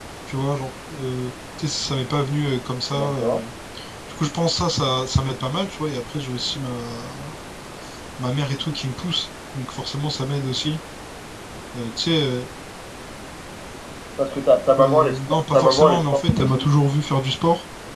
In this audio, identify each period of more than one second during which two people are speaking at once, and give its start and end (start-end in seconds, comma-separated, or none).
14.8-16.6